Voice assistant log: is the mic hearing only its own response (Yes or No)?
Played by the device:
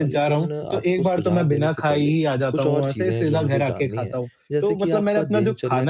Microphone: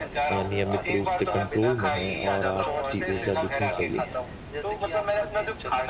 No